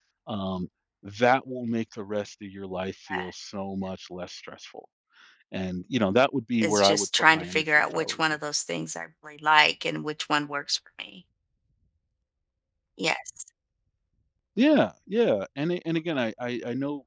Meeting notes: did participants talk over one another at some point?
Yes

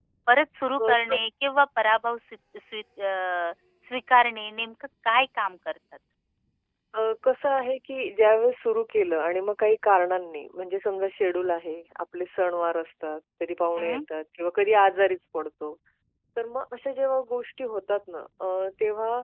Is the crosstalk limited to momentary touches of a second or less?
Yes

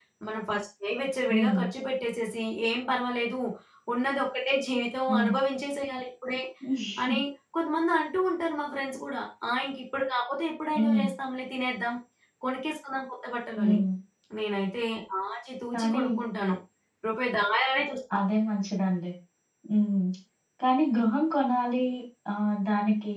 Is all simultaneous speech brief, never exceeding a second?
Yes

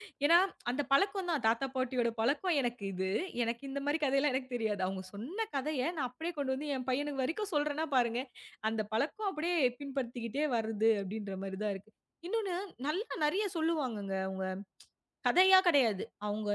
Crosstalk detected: No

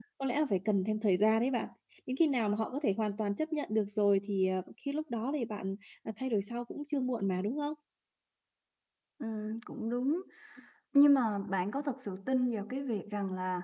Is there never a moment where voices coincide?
Yes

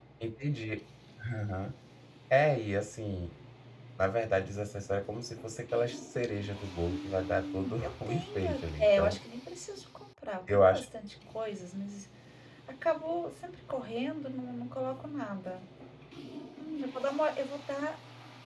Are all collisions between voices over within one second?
No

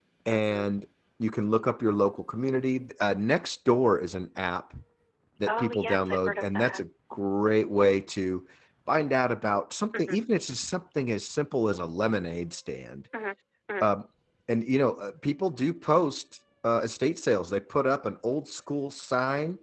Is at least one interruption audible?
Yes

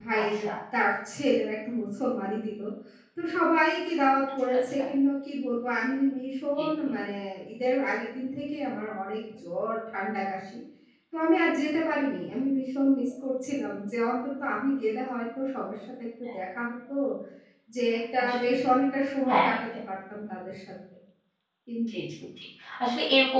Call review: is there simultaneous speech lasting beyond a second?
No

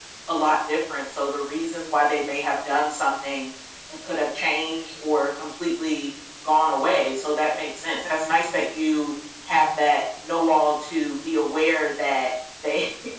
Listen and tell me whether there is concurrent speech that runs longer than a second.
No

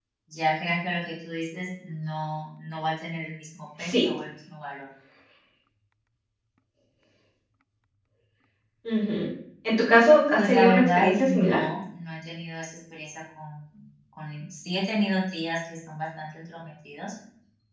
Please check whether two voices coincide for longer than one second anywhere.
Yes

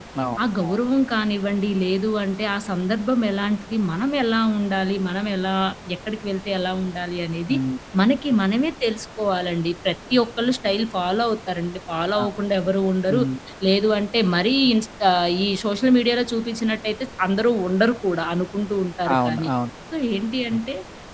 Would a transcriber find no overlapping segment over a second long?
Yes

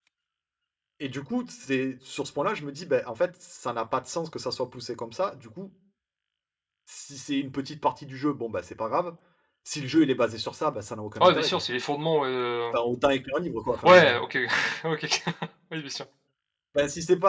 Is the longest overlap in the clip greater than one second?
No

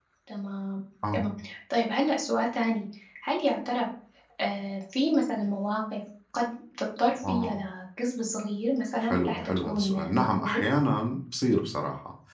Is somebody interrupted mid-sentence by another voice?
Yes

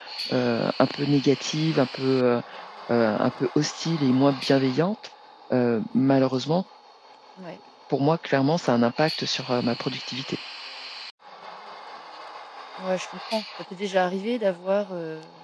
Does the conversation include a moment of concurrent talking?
No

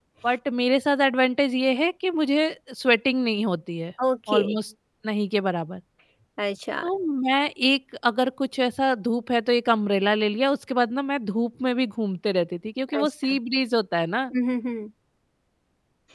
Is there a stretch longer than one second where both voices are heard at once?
No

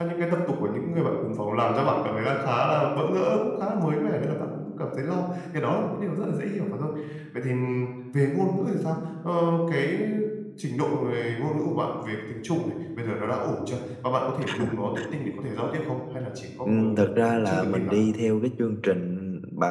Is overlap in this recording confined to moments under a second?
No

